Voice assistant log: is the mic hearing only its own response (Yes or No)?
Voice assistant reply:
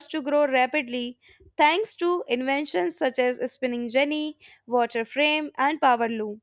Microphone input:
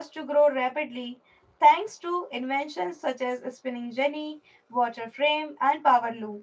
Yes